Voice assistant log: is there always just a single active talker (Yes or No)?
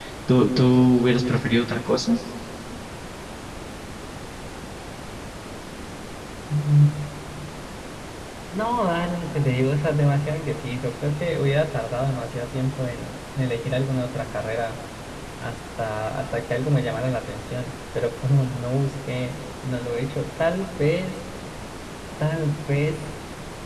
Yes